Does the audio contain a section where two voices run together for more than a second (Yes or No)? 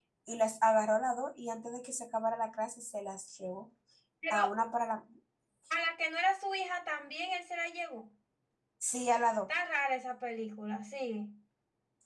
No